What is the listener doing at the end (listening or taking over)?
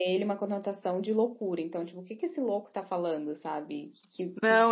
taking over